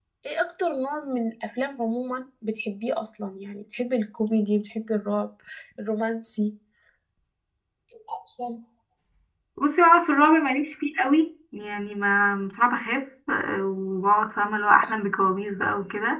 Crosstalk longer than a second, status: none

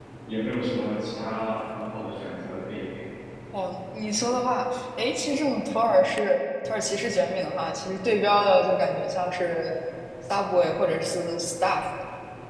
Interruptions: none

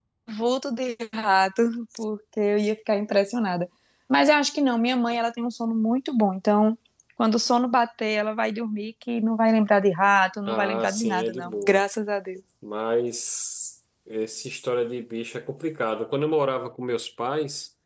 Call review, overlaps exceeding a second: present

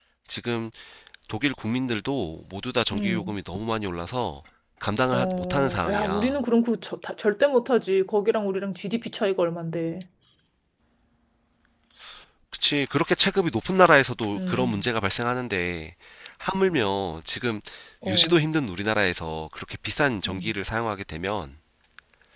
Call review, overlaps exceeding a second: present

